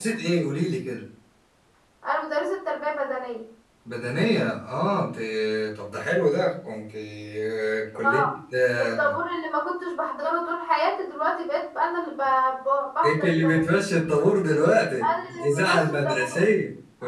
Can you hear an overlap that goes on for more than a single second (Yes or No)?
Yes